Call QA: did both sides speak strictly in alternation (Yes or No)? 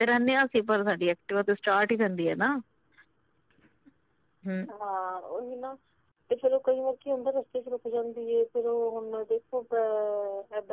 Yes